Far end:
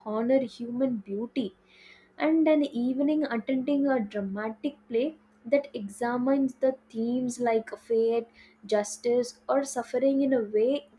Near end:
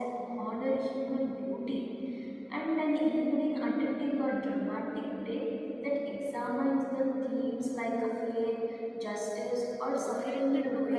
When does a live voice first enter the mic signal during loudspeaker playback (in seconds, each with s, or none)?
10.0 s